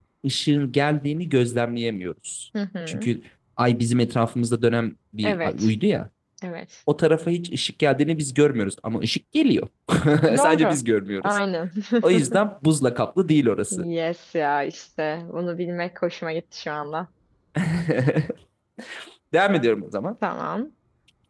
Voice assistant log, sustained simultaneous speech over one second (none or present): none